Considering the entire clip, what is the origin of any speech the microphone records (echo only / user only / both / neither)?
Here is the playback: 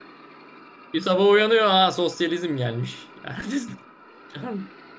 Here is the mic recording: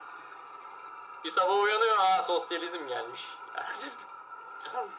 echo only